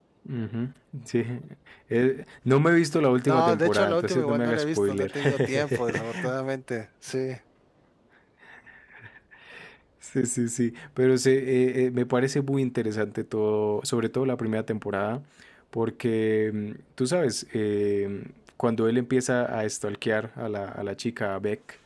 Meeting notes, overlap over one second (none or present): present